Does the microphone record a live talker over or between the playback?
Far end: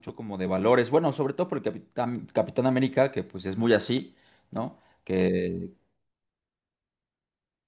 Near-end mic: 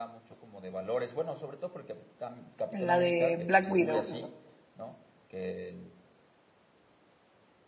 Yes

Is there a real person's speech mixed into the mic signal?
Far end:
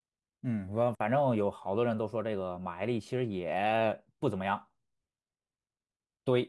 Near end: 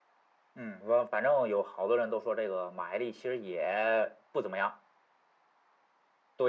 No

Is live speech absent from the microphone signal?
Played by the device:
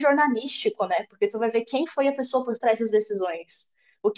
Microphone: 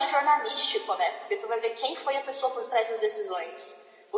Yes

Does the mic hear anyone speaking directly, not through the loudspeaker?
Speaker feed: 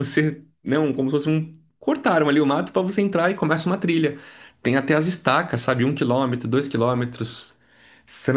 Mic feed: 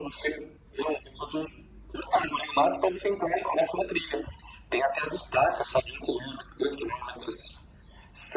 No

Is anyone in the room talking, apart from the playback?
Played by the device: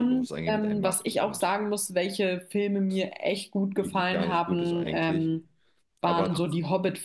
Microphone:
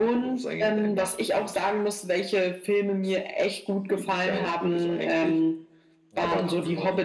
Yes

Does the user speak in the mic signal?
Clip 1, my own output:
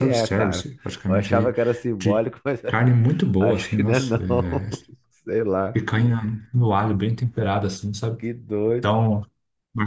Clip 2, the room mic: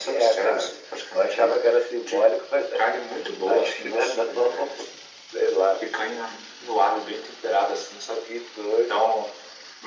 No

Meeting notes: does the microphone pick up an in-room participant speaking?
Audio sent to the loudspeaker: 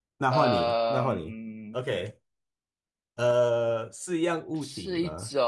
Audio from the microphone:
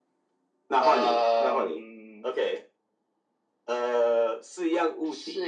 No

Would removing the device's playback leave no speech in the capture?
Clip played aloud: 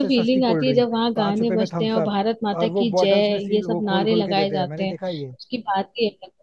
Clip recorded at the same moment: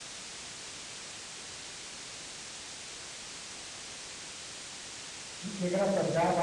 No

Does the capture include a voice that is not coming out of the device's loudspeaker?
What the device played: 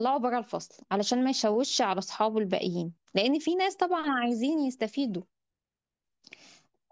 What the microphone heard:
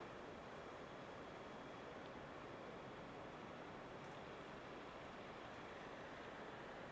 No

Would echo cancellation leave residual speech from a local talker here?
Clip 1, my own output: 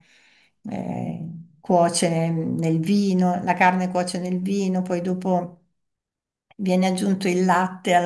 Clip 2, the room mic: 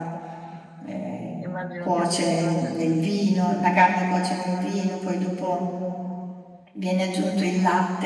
Yes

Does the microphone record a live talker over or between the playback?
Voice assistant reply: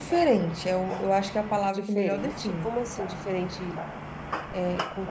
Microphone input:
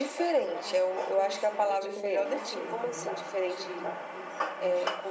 Yes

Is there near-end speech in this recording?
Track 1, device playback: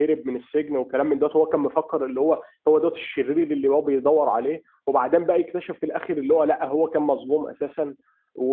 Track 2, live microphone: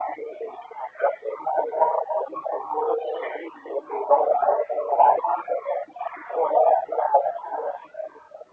No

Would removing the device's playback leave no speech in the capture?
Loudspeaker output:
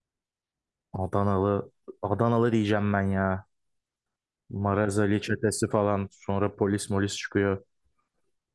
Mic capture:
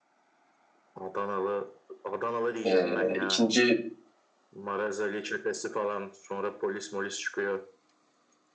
No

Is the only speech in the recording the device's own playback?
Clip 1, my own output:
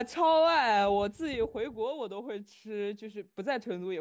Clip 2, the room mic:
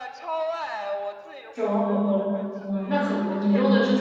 No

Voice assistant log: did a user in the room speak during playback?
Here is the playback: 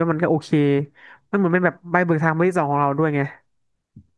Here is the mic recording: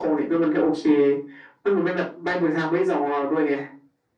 No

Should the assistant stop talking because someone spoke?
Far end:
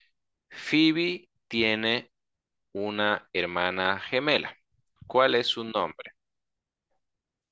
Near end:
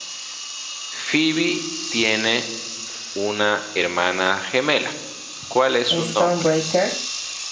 Yes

